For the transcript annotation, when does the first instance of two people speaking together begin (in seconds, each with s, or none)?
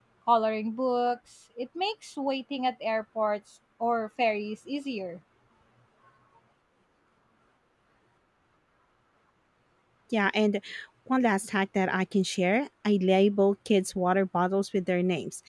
none